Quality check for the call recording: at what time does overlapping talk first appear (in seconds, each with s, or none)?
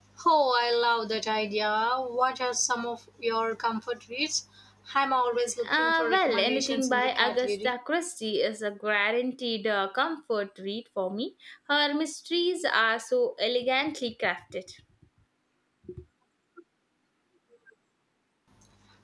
5.7 s